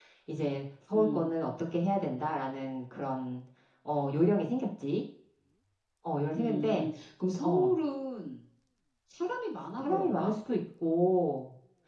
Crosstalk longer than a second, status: none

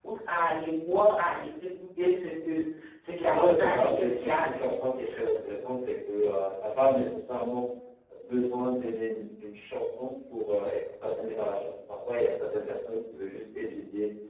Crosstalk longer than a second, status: present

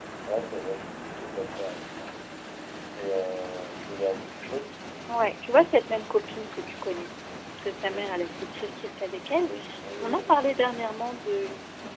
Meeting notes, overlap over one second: none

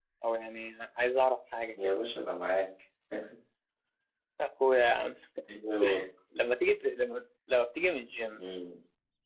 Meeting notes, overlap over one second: none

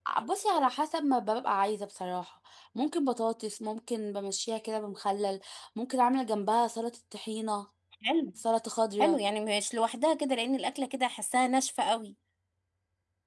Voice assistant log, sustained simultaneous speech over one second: none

